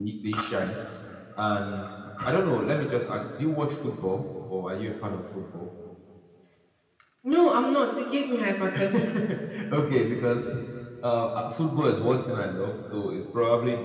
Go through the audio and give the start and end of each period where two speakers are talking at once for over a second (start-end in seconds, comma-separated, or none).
none